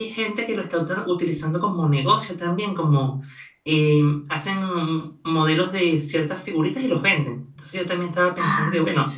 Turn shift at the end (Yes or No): No